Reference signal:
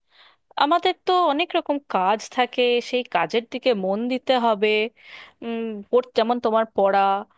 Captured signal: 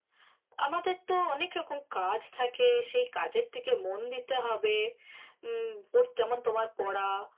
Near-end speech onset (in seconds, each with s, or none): none